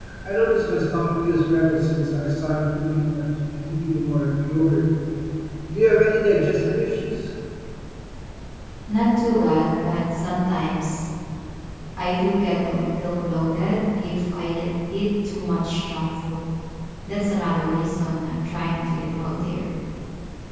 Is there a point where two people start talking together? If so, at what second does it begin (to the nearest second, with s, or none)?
none